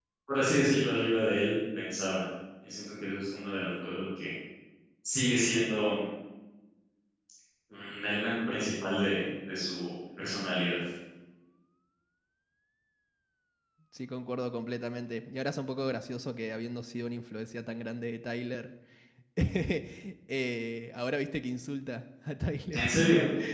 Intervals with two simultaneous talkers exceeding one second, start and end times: none

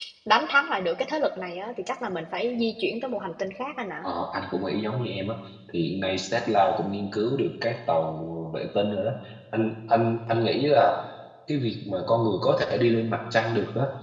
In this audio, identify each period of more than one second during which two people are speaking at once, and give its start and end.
none

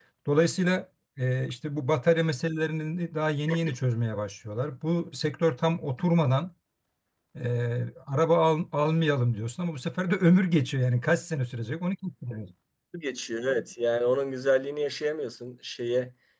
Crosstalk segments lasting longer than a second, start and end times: none

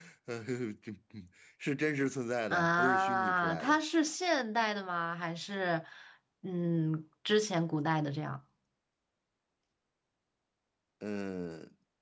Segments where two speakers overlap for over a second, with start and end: 2.5-3.8

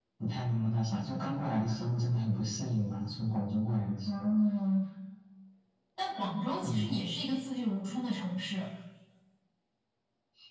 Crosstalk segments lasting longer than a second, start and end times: none

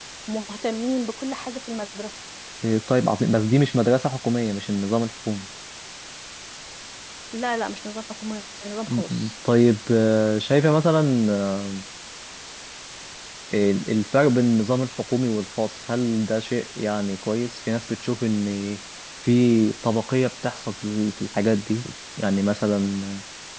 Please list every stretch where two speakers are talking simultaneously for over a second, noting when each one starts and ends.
none

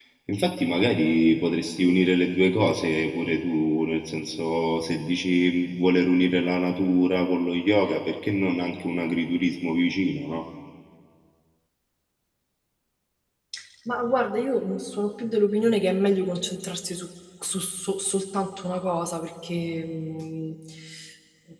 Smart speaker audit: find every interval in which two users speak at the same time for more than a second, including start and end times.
none

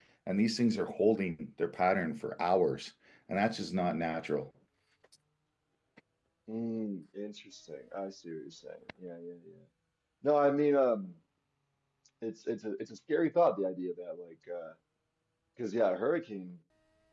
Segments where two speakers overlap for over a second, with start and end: none

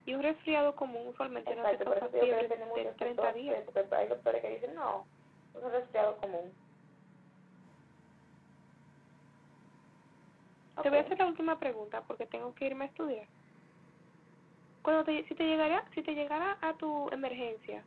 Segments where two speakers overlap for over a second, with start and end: 1.5-3.5

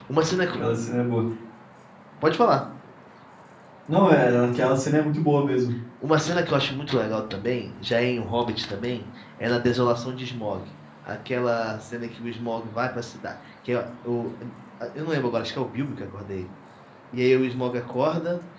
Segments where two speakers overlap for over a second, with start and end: none

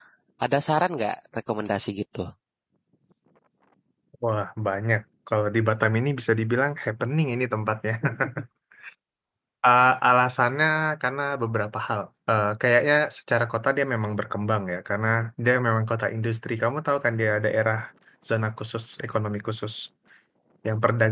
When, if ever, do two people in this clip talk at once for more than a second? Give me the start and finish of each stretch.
none

